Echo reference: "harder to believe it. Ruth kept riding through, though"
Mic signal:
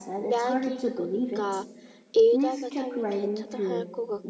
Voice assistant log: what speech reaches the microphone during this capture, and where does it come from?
both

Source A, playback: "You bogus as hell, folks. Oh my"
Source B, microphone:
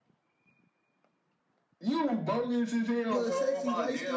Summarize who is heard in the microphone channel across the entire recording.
both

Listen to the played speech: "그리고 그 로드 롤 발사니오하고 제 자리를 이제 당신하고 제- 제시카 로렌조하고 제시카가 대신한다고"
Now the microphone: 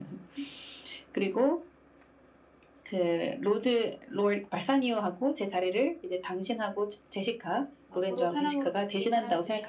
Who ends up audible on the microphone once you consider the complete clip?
both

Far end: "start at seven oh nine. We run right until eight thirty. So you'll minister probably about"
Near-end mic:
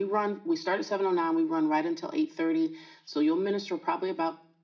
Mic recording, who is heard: echo only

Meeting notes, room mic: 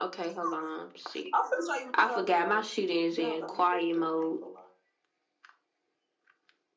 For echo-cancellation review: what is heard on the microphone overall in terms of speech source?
echo only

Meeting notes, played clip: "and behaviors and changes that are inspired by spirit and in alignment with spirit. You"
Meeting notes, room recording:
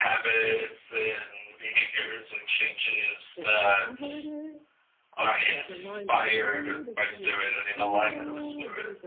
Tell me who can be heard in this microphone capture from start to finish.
both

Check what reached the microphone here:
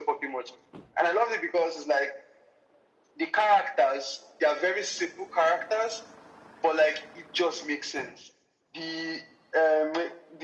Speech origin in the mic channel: echo only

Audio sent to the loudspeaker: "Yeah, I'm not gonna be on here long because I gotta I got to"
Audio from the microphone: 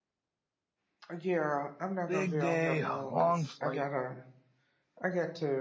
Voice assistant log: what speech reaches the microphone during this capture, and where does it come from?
both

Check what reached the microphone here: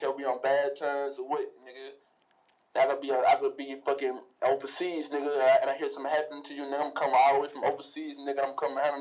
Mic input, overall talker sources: echo only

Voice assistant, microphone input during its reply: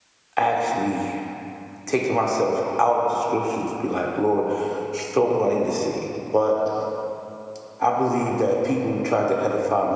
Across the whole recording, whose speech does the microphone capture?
user only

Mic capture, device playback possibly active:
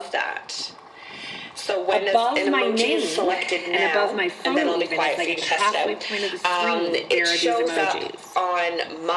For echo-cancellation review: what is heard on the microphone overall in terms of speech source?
both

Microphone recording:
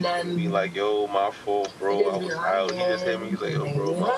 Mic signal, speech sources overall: both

